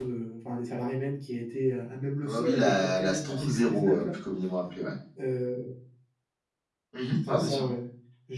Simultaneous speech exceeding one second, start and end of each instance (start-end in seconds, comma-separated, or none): 2.2-4.1